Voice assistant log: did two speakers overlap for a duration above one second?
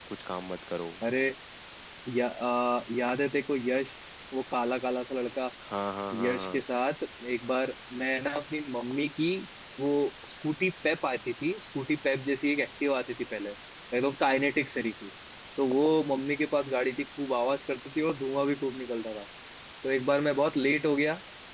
No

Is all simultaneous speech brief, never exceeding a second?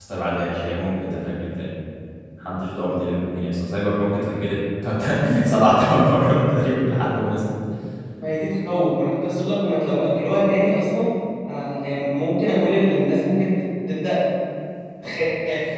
Yes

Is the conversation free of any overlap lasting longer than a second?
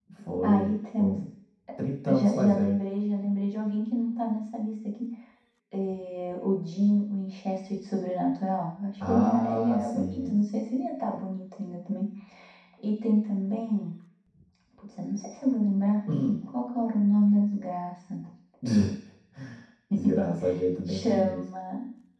No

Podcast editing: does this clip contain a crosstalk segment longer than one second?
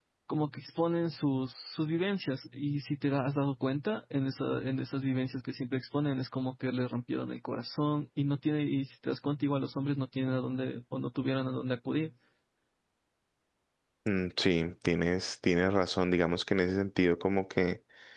No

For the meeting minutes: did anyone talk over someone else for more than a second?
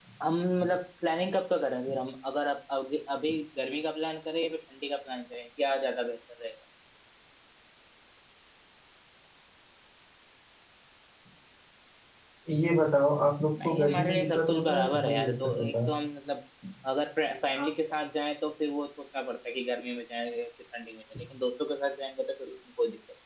Yes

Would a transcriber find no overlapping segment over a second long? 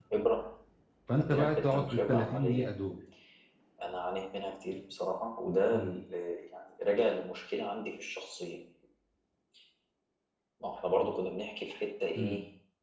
No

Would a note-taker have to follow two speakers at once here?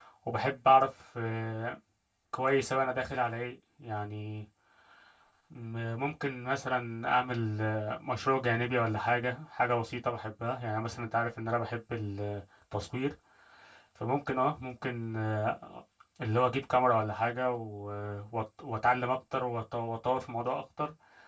No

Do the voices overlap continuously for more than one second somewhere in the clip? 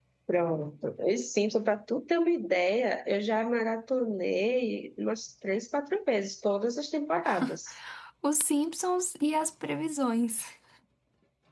No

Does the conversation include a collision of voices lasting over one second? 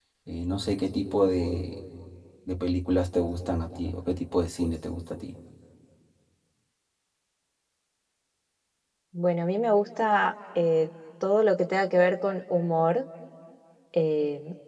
No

